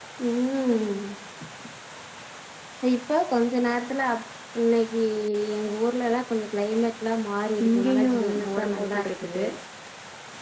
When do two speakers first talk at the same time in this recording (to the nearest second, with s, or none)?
8 s